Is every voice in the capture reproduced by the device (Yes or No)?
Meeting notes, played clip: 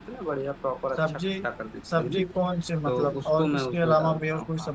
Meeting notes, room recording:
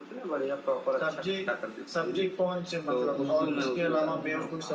No